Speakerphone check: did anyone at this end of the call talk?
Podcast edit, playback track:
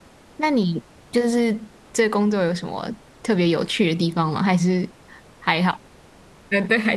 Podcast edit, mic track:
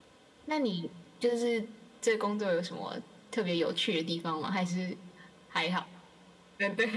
No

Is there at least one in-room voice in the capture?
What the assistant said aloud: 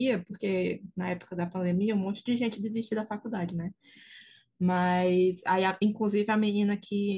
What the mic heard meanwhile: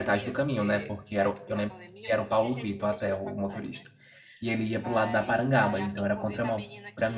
Yes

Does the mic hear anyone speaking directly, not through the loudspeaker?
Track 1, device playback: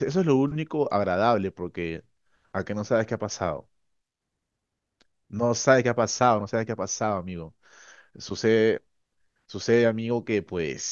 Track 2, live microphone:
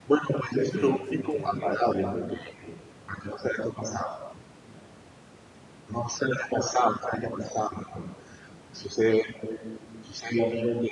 Yes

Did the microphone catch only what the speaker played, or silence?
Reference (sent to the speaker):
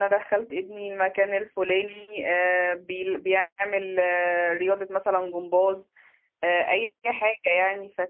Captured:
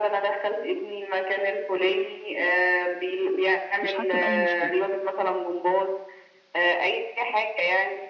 No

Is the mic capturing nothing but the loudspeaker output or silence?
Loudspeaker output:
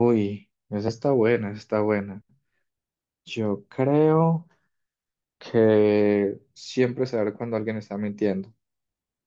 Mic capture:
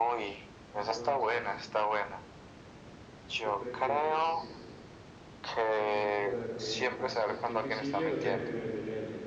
No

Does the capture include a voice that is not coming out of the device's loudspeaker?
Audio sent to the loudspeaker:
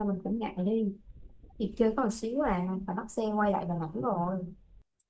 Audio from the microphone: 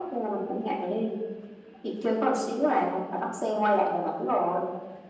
No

